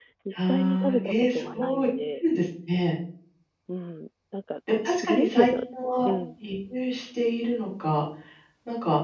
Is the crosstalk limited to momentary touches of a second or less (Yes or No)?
No